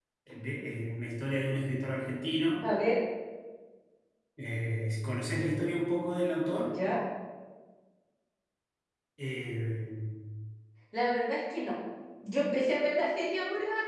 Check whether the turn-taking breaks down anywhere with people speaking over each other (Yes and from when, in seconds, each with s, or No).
No